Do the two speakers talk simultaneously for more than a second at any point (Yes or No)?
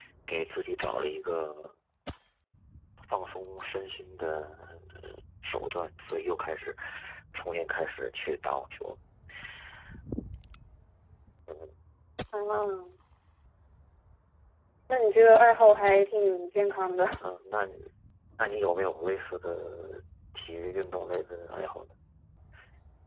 No